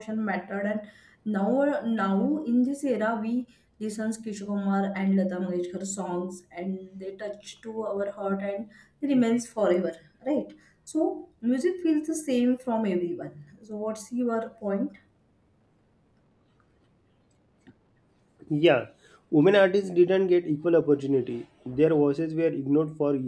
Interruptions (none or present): none